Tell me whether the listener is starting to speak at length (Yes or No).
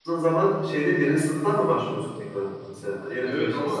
Yes